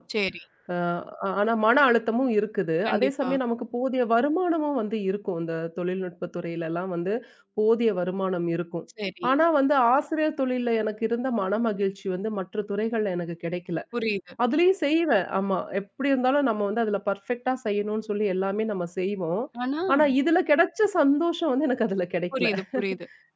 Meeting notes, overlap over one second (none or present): none